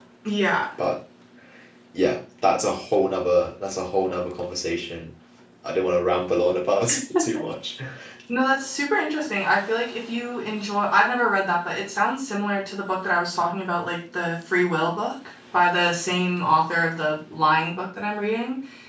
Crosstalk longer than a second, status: none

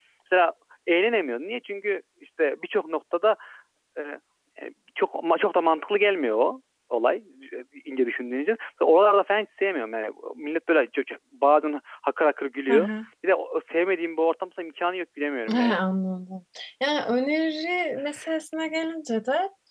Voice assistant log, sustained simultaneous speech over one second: none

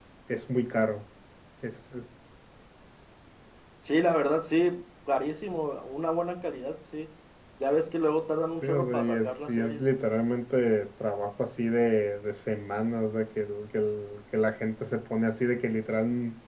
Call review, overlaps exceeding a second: present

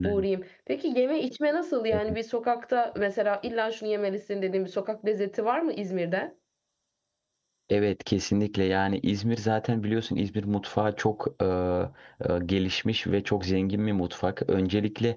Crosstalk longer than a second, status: none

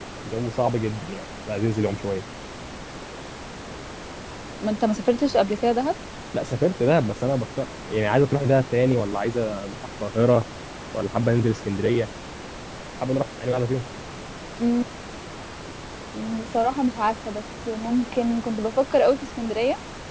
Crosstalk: none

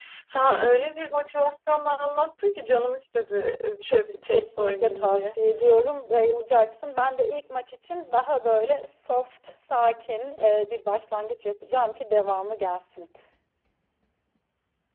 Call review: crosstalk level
present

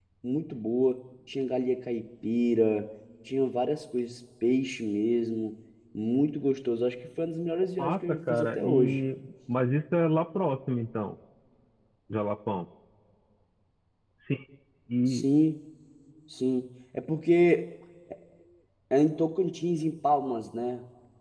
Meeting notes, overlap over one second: present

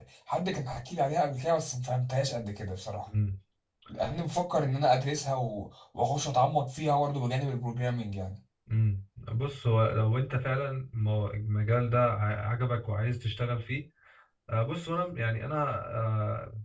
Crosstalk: none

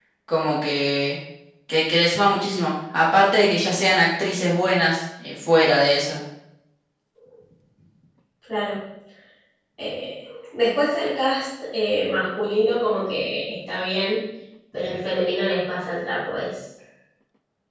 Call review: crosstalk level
none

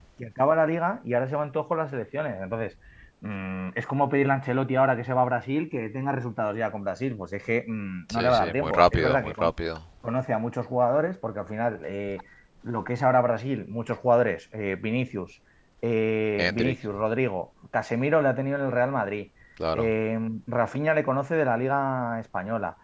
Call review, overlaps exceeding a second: present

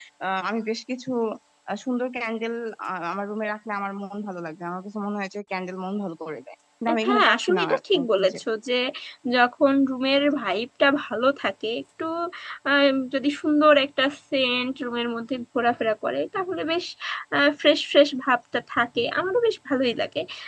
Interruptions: present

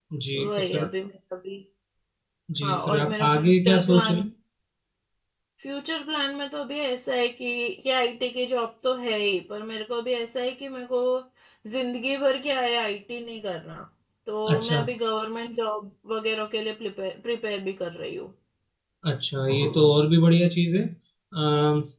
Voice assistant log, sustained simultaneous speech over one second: present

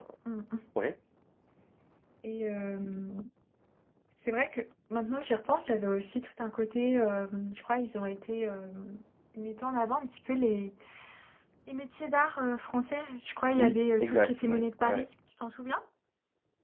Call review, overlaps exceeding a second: present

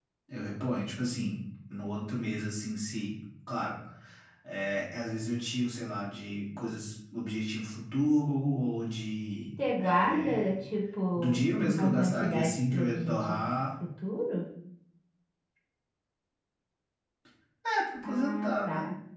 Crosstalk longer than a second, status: present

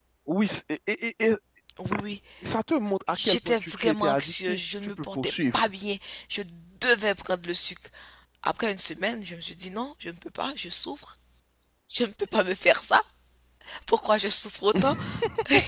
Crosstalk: present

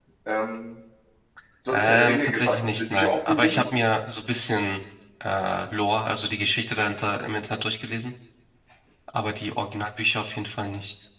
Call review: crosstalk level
present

